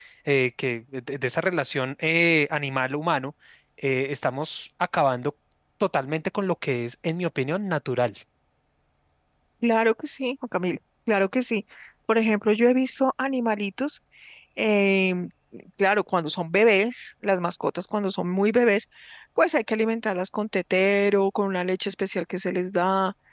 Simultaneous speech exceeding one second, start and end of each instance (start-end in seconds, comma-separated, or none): none